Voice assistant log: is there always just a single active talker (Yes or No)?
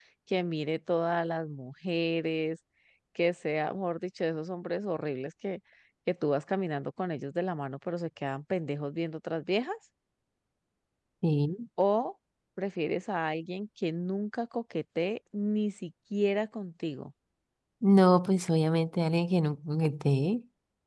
Yes